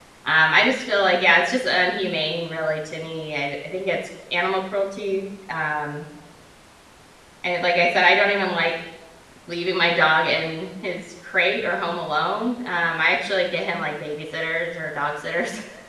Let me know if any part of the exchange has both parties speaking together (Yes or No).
No